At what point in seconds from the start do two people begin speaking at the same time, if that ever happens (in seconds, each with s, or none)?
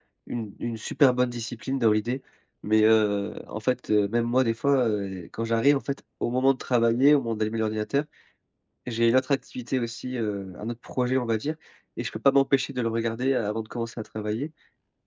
none